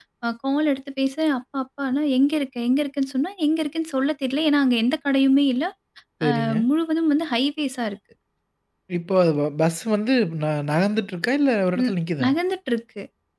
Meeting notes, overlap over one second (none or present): none